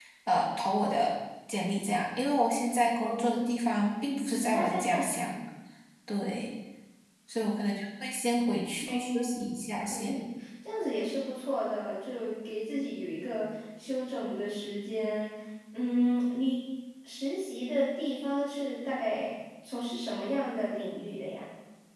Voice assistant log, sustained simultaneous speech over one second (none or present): present